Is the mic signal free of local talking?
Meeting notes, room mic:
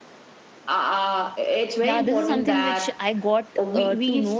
No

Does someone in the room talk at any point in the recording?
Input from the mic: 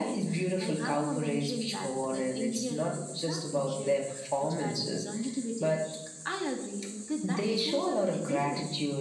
No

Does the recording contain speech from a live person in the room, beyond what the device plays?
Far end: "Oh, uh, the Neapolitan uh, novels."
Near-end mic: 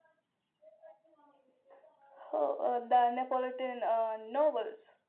No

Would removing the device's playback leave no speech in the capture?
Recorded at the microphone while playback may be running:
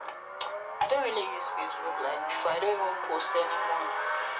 Yes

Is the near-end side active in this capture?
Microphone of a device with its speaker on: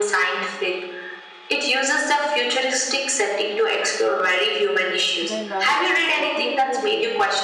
Yes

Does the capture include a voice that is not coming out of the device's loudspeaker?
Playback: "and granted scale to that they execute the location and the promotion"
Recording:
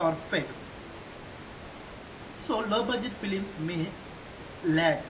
Yes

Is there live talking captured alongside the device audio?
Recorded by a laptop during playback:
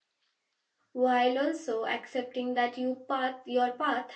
Yes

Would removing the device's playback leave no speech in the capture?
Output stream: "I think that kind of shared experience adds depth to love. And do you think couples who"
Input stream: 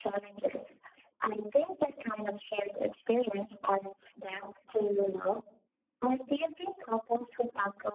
Yes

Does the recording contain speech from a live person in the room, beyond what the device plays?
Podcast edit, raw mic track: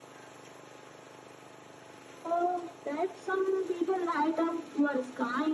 No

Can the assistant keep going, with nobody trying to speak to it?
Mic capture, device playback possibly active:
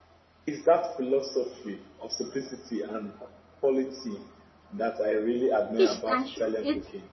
No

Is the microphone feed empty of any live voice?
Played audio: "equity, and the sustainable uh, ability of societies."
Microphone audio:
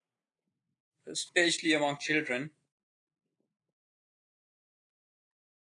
No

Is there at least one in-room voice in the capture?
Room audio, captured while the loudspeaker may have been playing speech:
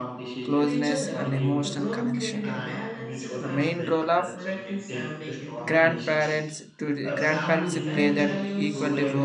Yes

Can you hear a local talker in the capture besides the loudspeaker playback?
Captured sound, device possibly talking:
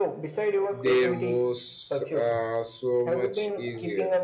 Yes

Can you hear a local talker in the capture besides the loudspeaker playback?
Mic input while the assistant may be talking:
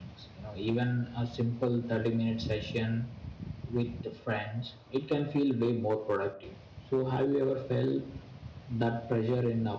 Yes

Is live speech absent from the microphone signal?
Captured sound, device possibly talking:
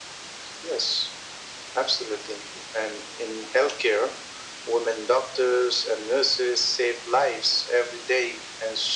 Yes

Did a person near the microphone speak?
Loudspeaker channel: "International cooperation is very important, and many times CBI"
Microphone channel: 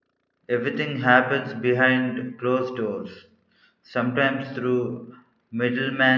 Yes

